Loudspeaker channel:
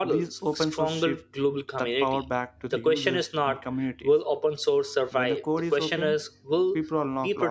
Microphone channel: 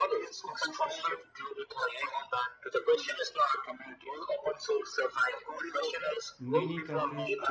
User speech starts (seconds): 6.4 s

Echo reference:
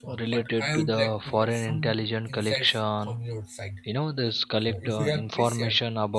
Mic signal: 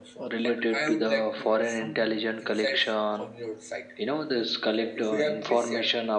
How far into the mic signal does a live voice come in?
none

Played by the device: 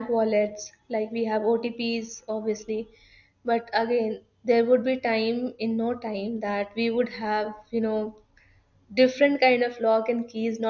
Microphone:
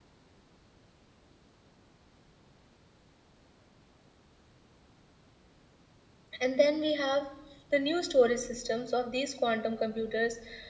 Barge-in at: 6.4 s

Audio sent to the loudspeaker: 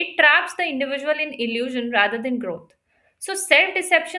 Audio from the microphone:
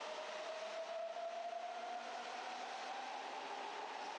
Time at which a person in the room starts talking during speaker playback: none

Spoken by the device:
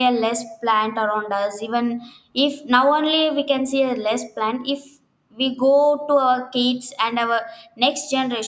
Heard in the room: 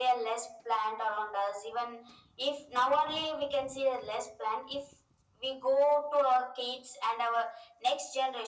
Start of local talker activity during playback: none

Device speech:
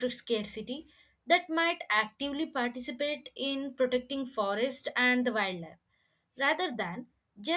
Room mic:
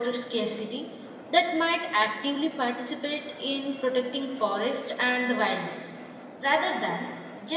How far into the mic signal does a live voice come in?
none

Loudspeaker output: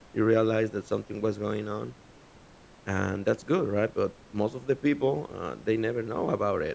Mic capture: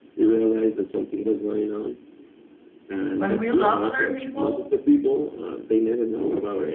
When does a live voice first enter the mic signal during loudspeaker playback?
3.1 s

